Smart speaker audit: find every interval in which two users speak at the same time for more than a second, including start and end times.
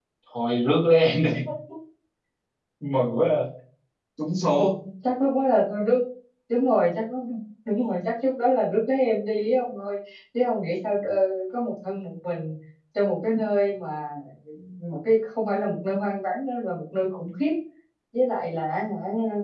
none

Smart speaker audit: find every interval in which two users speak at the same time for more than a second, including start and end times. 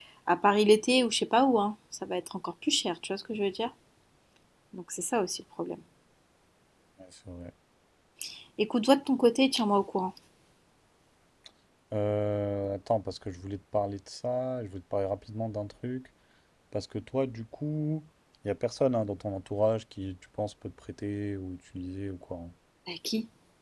none

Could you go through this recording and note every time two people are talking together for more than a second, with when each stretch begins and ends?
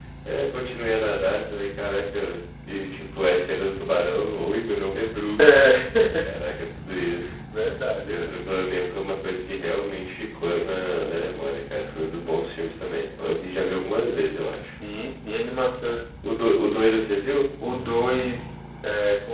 none

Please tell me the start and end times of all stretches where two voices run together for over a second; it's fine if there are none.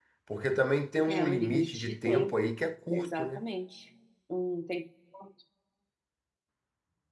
1.1-2.3

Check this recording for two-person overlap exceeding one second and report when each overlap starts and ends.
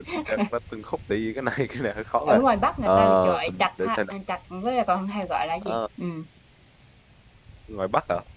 2.9-4.1

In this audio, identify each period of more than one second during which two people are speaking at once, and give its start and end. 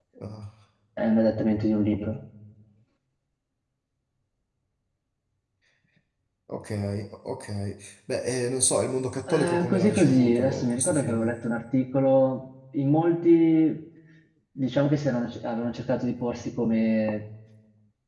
9.3-11.3

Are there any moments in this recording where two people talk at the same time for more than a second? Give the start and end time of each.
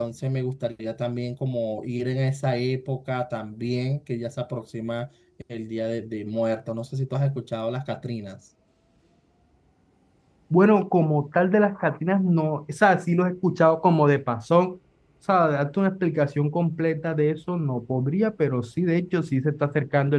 none

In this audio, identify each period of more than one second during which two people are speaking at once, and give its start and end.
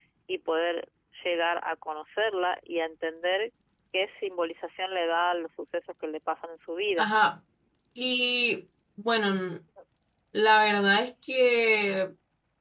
none

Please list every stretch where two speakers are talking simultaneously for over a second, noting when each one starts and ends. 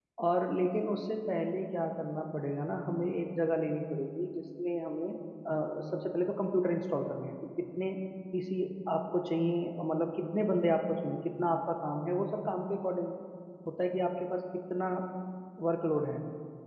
none

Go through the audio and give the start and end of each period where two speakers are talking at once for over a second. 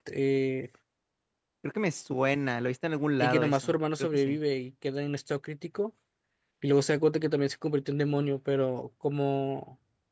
3.2-4.4

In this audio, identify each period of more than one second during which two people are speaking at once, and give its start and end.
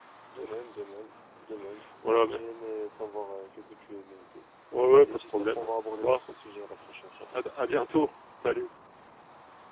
5.0-6.2

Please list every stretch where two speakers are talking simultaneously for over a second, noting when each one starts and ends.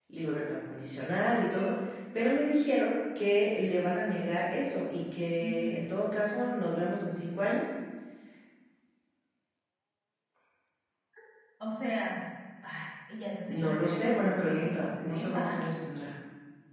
13.5-15.7

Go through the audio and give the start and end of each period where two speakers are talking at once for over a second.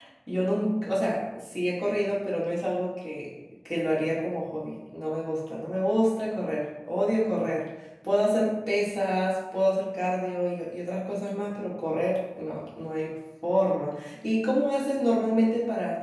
none

